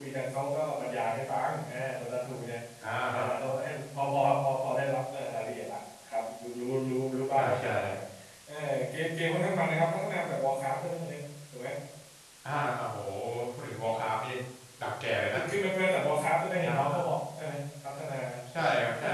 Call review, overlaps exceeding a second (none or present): none